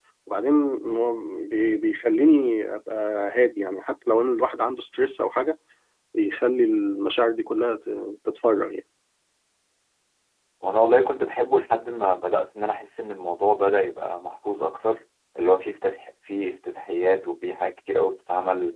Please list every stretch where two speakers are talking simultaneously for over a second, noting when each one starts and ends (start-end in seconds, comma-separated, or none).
none